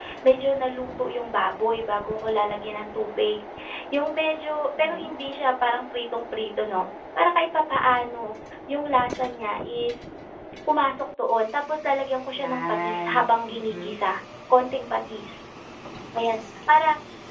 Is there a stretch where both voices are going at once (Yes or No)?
Yes